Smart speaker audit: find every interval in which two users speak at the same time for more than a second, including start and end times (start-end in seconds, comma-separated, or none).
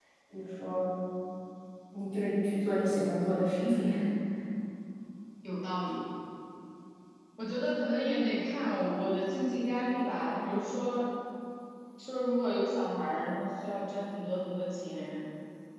none